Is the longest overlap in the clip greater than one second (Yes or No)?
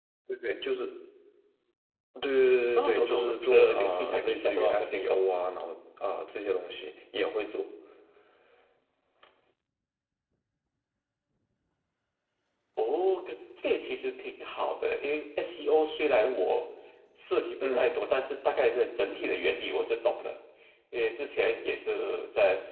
Yes